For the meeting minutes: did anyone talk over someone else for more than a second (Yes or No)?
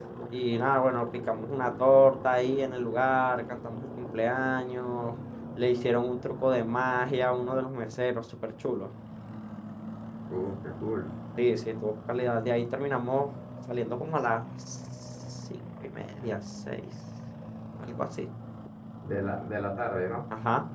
No